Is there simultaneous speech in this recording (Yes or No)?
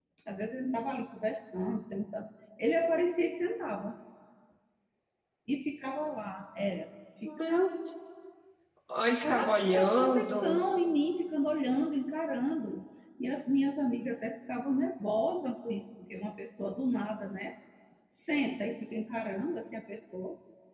Yes